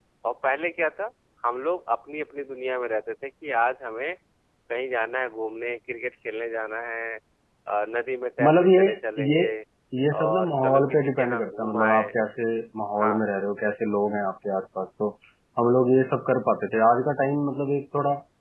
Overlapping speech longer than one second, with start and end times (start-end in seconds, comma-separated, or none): 10.2-12.0